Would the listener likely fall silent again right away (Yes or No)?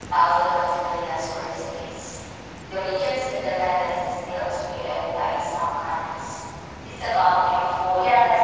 No